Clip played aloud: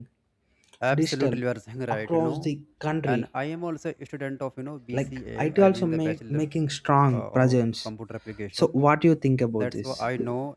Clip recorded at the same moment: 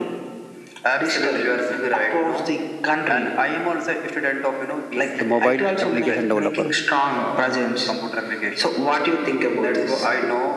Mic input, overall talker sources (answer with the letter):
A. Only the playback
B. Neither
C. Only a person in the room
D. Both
D